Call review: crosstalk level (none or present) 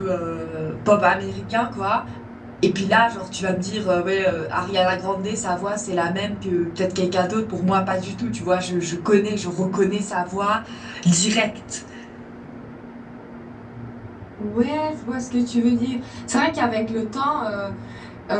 none